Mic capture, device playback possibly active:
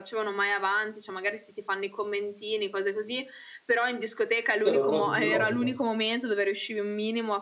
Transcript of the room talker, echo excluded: Sì, hai l'orologio biologico.

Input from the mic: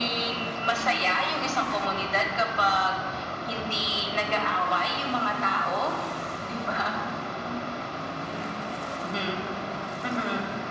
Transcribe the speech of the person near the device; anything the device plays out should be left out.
none

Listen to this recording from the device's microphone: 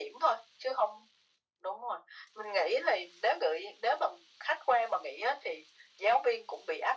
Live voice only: none

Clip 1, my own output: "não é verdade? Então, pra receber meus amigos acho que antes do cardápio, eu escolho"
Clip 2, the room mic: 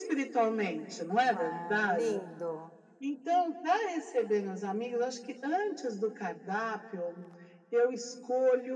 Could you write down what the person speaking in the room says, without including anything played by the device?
Ai, lindo.

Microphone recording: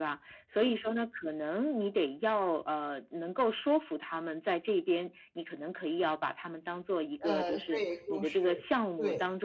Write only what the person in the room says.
呃，所以就是对。

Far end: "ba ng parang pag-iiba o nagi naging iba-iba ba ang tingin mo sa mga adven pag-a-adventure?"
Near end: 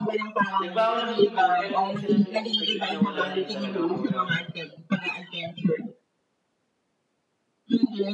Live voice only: nagbaon naman kami nun pero hindi kasi namin expected na wala din talaga kumbaga

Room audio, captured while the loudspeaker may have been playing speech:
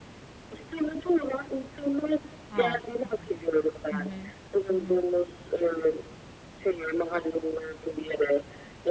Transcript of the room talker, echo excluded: A. Hı hı. Hı hı. Hı hı.

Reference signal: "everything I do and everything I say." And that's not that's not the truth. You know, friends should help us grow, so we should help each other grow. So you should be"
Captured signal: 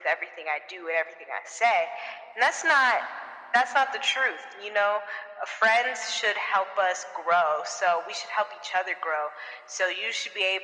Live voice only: none

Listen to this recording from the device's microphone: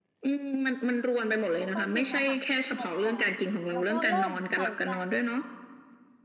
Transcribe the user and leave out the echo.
ก็ต้องกินอาหาร ที่มัน อ่อน ๆ แล้วก็เริ่มใส่ใจ

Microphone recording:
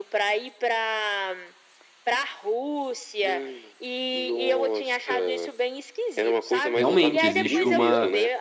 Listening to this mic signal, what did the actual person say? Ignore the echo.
Realmente existe uma

